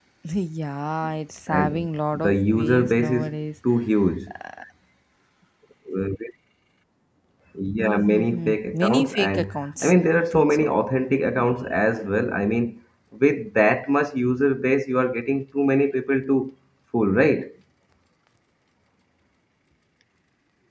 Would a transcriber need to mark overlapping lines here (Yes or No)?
Yes